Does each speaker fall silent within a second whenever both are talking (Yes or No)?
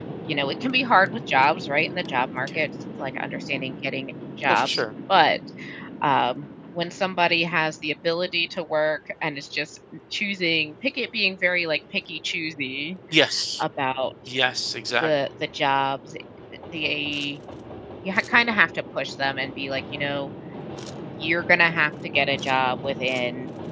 Yes